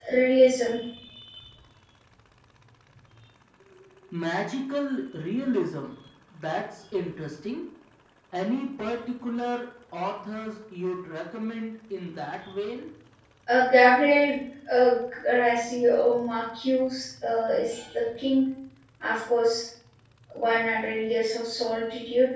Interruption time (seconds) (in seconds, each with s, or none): none